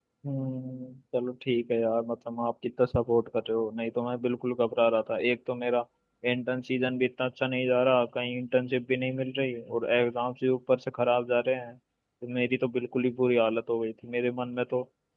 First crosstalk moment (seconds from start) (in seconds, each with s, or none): none